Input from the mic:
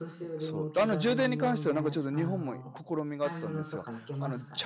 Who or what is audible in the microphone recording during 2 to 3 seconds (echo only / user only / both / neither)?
both